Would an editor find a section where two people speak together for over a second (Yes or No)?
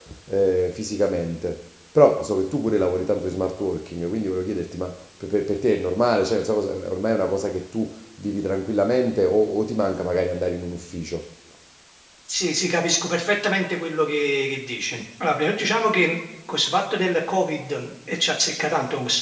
No